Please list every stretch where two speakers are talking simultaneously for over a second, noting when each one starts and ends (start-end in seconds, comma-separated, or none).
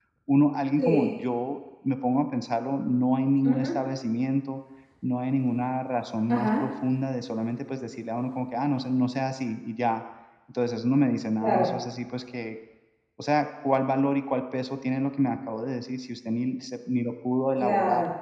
none